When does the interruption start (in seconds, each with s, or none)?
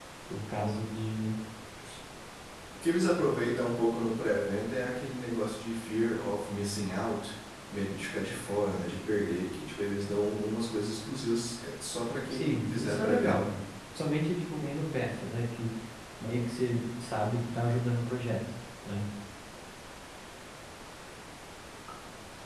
12.3 s